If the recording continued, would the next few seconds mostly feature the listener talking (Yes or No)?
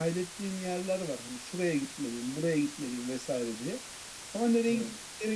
No